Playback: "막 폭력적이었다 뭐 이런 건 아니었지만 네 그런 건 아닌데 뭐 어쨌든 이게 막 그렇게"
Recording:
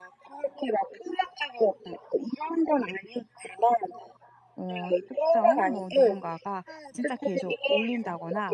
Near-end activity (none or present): present